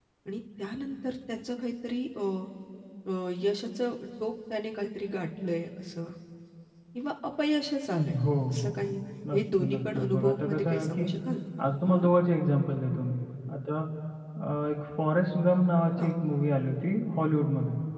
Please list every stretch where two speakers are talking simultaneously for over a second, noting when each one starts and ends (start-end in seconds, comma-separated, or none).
9.3-11.1